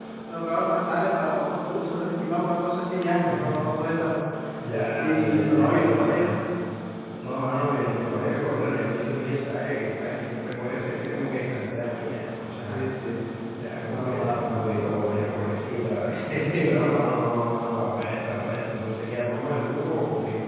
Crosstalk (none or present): present